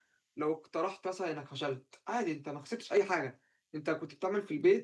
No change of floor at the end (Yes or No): Yes